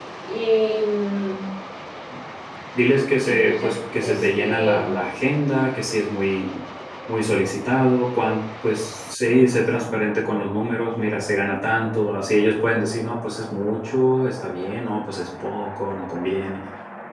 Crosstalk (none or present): present